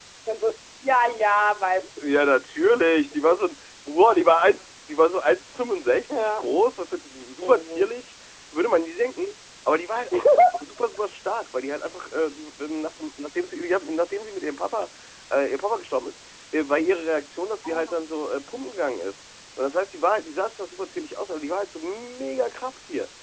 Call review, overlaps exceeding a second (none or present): none